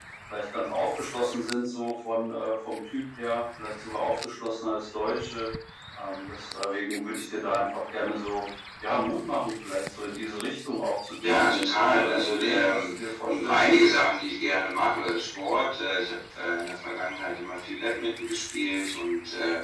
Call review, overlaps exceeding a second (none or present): present